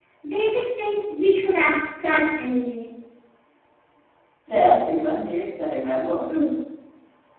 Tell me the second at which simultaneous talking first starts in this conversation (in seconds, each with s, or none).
none